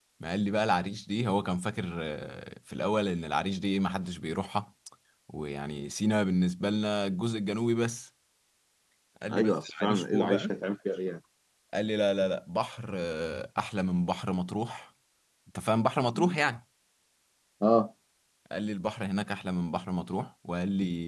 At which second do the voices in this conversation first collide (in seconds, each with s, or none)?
9.3 s